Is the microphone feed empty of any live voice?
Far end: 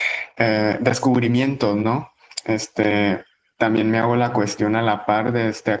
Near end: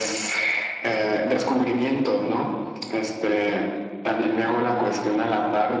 Yes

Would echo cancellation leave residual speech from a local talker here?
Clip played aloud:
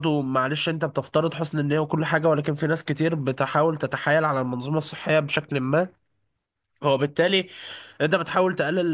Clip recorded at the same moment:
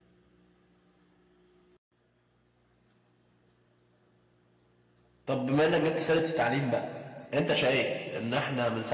Yes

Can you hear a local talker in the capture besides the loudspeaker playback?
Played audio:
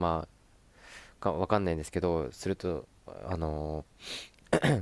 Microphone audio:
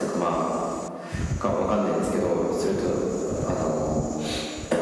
No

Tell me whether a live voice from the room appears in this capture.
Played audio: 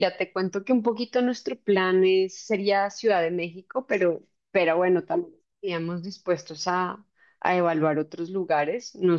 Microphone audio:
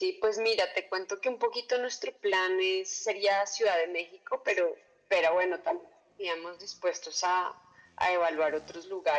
No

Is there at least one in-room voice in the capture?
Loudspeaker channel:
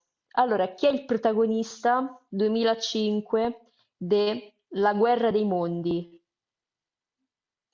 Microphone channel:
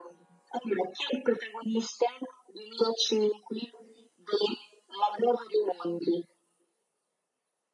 No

